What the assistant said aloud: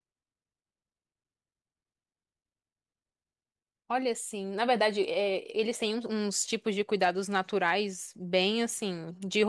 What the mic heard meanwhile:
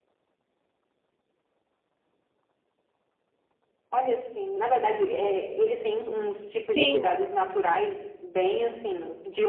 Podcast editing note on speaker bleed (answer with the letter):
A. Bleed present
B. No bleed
A